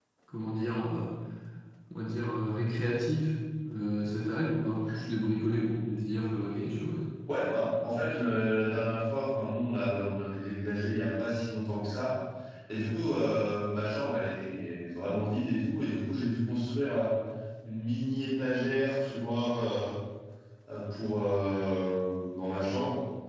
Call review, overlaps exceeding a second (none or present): none